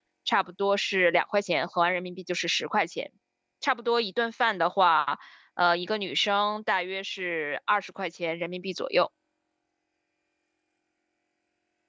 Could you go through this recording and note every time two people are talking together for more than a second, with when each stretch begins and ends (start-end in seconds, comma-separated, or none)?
none